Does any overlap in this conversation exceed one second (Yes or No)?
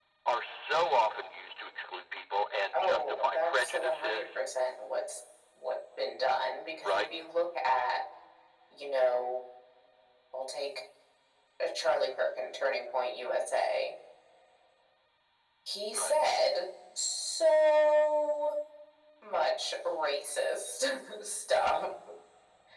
Yes